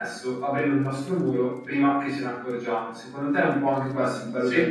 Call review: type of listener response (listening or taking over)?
taking over